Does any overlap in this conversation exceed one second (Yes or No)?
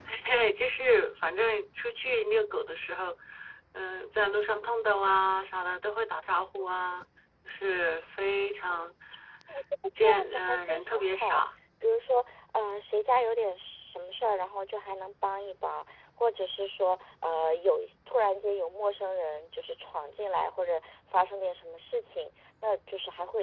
Yes